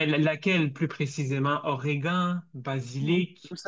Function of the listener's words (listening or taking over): taking over